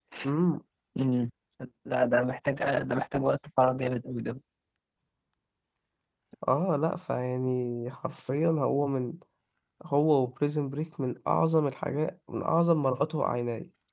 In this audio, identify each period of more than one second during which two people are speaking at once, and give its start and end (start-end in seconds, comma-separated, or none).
none